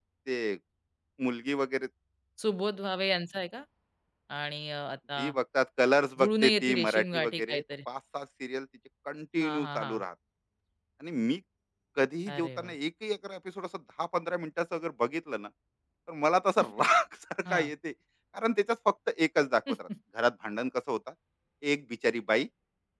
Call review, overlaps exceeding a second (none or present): present